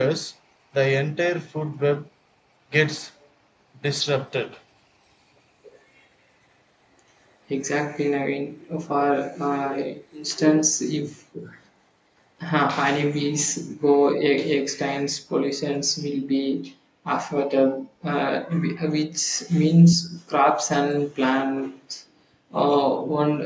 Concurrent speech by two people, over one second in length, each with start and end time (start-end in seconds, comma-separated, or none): none